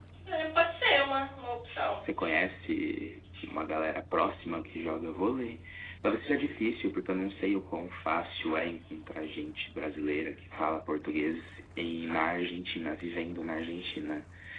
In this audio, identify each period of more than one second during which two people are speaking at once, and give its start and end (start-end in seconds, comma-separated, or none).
none